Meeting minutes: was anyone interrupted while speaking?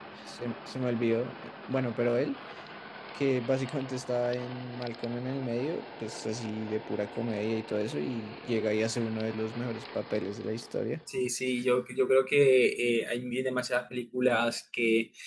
No

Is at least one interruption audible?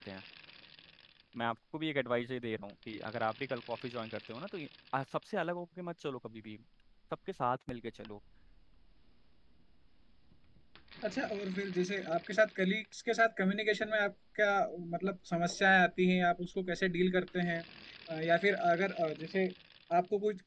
No

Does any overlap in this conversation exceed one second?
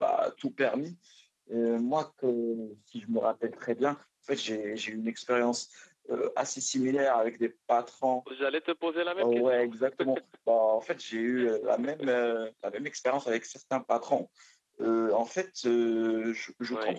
No

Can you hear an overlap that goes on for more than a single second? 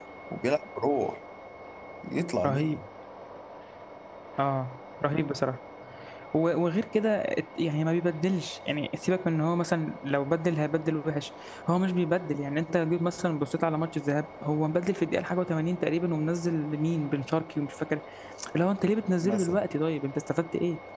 No

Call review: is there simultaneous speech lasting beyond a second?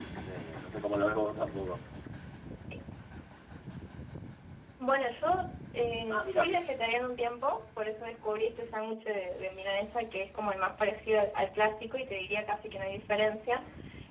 No

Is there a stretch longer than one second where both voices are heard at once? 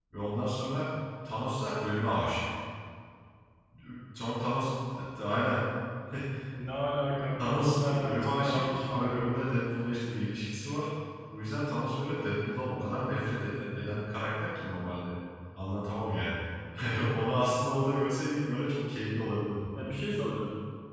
Yes, from 7.4 s

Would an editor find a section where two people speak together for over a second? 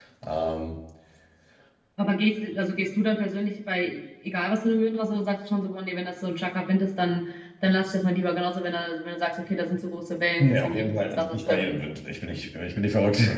Yes, from 10.4 s

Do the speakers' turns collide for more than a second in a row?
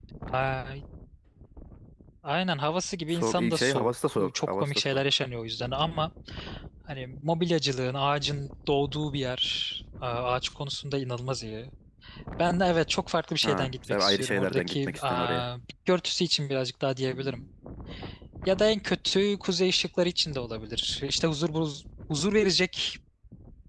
Yes, from 3.1 s

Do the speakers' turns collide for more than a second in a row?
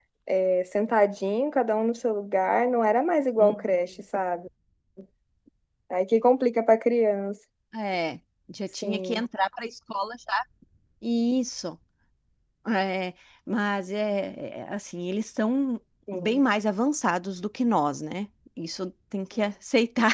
No

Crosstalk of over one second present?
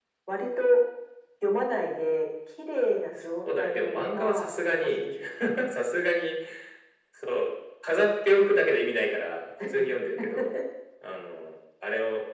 Yes, from 3.6 s

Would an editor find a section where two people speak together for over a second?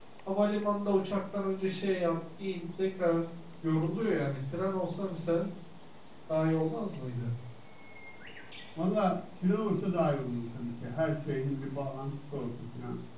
No

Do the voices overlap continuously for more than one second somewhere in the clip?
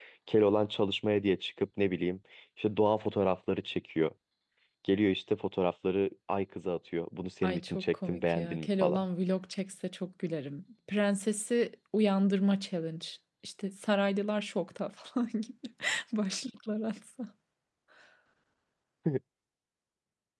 Yes, from 7.4 s

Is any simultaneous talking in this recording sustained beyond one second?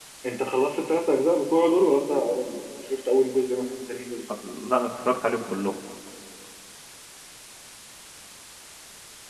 No

